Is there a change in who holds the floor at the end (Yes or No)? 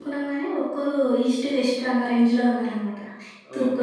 Yes